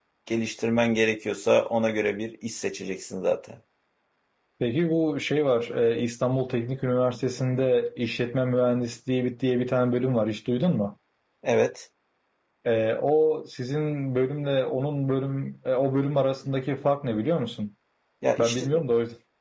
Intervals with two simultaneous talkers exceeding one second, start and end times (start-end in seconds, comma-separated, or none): none